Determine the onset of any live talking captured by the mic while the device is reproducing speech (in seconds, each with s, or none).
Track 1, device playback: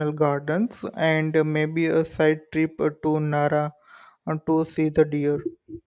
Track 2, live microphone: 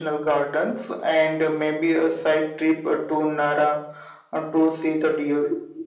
none